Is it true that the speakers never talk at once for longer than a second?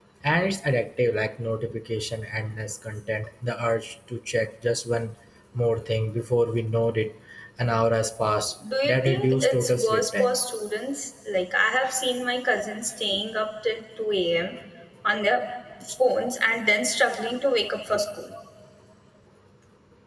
No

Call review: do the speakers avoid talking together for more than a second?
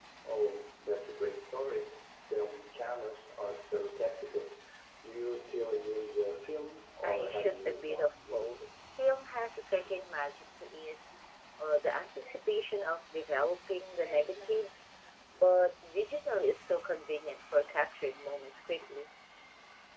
No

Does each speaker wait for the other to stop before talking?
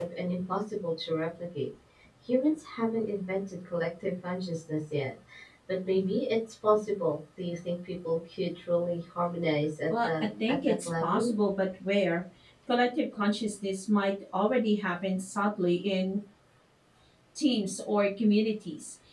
No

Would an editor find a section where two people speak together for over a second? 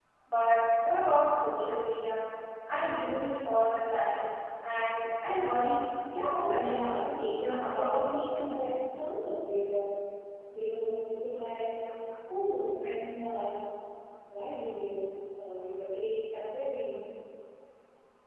Yes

